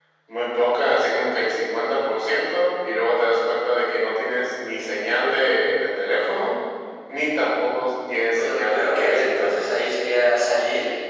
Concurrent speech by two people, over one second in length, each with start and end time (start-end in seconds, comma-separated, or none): 8.4-9.7